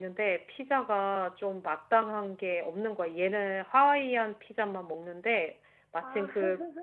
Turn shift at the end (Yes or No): No